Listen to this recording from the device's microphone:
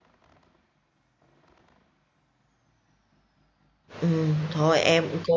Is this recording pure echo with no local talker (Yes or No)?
No